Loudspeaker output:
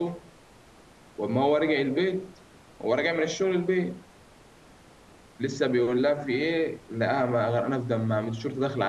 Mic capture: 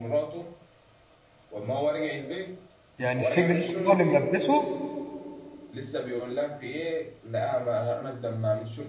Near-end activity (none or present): present